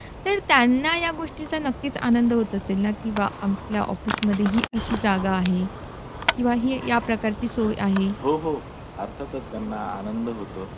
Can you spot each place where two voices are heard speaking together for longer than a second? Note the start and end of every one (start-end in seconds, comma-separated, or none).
none